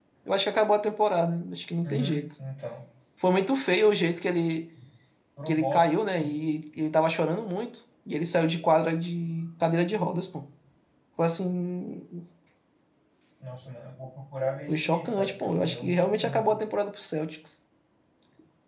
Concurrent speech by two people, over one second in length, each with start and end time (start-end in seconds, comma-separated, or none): 14.7-16.6